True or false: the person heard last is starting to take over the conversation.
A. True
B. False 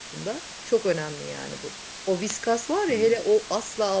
B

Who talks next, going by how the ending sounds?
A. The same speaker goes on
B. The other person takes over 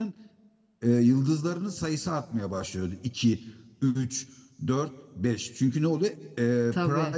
A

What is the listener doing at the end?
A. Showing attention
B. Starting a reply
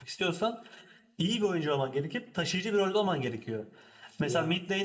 A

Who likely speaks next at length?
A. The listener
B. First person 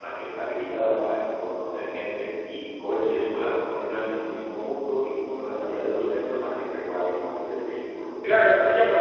A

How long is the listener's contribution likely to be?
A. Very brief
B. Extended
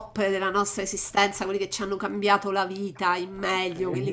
A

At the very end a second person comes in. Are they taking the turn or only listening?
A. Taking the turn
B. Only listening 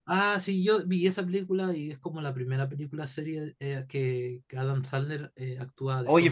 A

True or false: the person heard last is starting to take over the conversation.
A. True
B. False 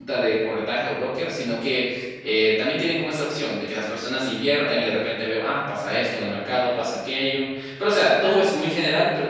B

